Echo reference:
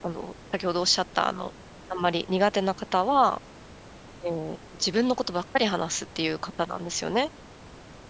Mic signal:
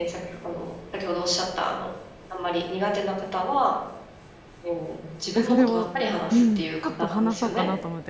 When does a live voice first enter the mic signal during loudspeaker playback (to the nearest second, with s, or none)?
5 s